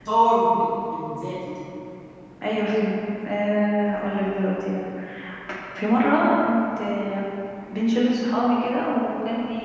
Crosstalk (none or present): none